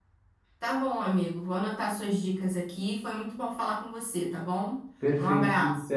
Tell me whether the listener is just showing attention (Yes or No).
No